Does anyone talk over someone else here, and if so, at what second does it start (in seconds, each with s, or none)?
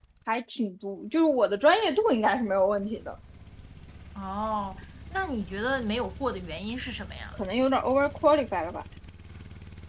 none